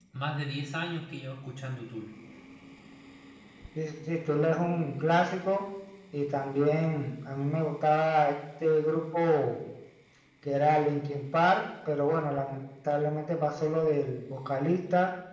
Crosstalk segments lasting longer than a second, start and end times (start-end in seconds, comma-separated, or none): none